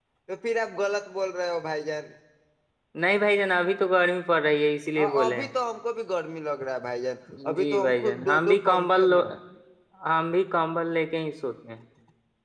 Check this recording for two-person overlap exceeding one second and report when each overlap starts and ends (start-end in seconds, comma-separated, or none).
7.5-9.2